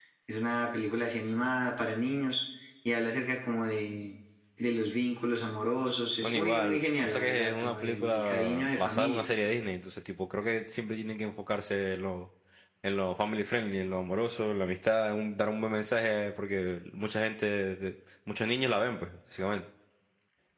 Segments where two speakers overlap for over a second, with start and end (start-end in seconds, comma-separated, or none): 6.2-9.2